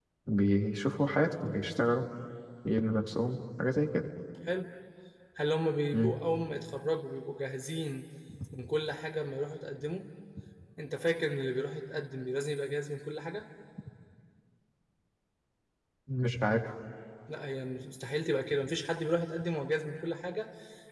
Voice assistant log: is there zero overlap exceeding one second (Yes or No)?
Yes